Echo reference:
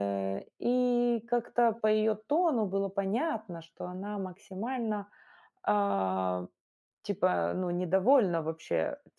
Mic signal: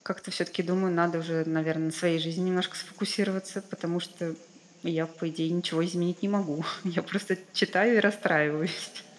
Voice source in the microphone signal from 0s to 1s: user only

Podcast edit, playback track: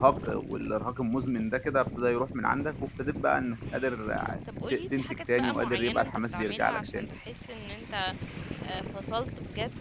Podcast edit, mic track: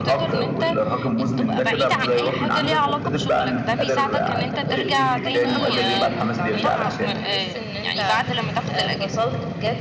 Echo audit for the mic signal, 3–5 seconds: both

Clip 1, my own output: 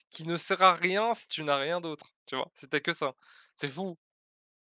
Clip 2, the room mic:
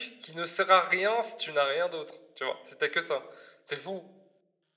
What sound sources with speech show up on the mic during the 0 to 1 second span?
echo only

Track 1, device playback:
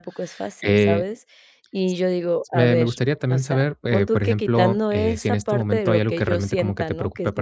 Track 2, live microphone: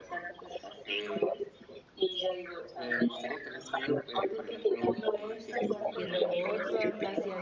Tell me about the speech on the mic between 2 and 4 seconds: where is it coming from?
echo only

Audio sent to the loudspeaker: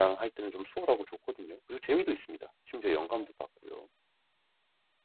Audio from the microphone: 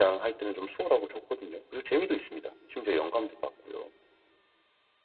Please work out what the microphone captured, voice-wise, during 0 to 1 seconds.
echo only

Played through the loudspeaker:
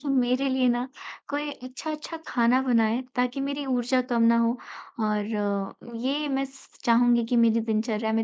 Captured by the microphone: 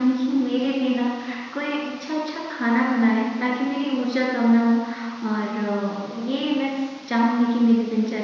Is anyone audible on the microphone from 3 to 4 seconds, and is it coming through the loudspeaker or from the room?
echo only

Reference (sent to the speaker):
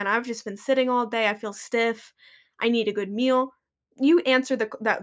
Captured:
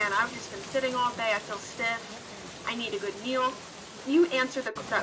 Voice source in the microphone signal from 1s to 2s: echo only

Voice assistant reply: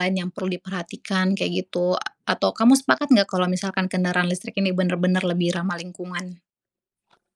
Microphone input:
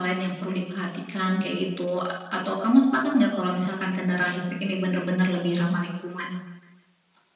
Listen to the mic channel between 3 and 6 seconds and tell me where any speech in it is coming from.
echo only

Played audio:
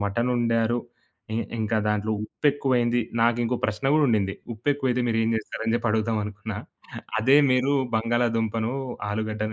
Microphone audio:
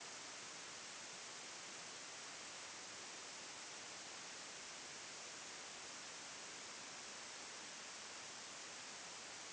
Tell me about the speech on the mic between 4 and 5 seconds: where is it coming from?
neither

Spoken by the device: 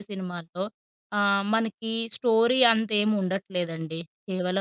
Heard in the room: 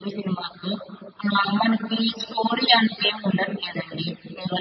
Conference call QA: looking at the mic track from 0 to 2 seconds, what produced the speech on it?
echo only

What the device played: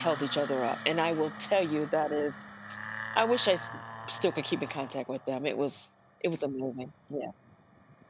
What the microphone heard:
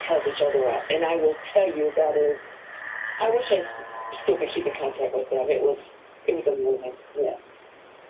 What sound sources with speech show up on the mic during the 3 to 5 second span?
echo only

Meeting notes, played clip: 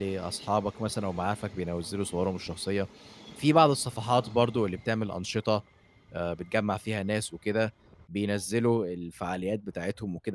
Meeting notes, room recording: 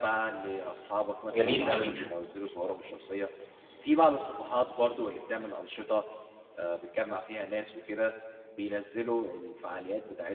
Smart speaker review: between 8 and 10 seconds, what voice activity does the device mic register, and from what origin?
echo only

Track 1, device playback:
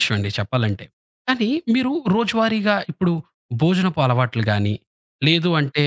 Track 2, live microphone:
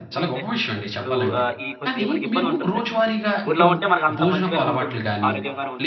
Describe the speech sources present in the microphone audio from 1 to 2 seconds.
both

